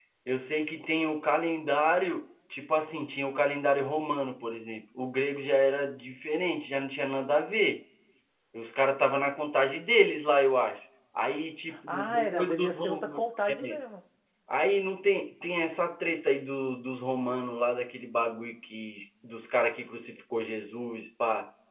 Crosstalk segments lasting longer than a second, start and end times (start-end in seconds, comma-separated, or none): 11.9-13.8